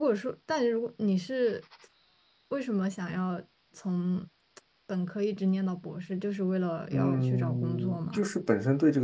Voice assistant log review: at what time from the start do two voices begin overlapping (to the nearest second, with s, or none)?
7 s